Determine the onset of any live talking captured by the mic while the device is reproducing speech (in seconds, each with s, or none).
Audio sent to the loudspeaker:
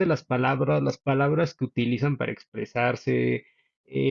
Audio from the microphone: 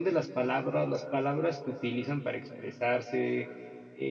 none